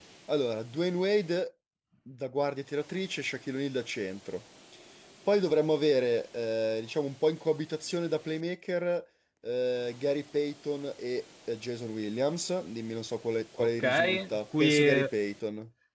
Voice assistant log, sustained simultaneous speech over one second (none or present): present